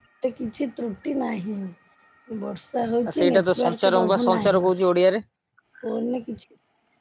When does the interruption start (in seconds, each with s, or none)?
3.1 s